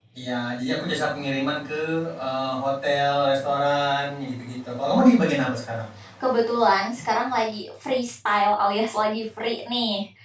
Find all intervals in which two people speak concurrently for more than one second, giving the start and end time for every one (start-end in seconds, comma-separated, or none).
none